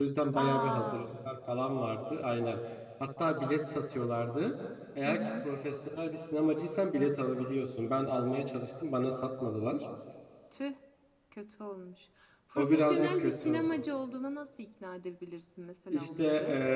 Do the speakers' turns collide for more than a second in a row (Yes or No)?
Yes